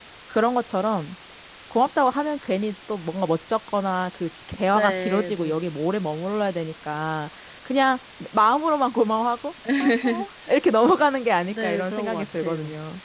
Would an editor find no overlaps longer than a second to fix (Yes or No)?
No